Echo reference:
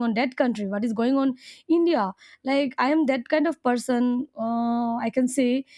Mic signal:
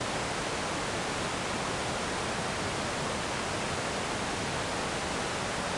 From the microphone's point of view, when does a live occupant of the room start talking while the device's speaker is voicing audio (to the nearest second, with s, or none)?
none